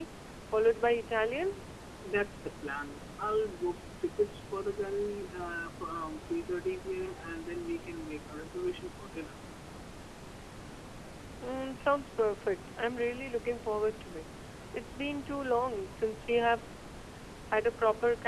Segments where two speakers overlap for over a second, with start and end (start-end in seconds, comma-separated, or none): none